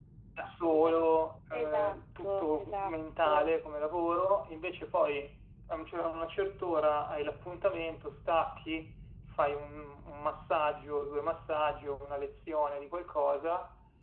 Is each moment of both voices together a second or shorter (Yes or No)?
No